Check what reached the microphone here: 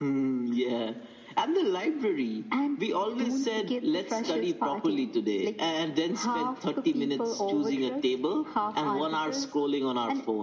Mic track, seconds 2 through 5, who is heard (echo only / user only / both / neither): echo only